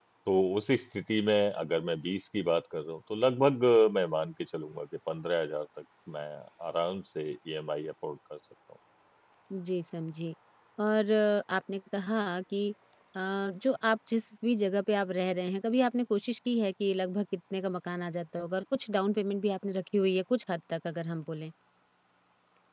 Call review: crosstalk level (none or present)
none